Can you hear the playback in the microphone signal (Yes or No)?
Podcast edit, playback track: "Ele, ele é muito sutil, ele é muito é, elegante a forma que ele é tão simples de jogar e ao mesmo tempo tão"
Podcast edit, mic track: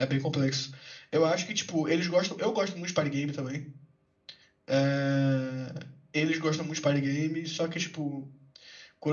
No